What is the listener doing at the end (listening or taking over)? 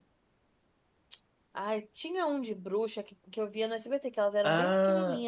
listening